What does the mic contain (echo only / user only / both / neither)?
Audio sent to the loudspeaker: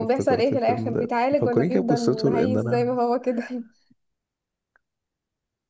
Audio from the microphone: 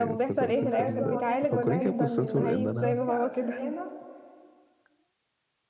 both